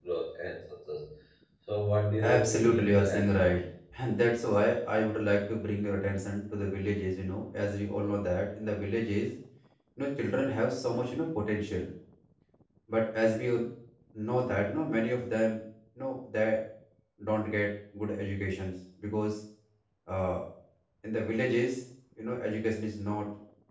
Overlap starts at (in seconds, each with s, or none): 2.2 s